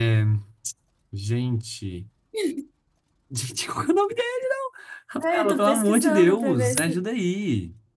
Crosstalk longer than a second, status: present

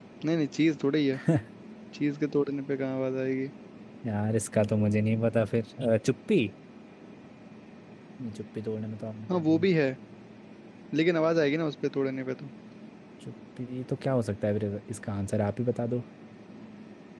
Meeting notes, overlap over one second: none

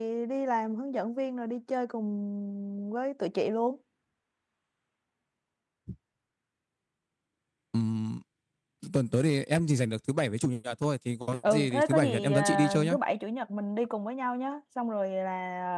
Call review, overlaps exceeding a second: present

